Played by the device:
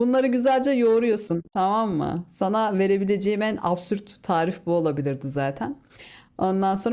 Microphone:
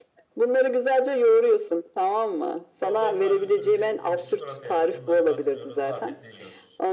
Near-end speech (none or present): present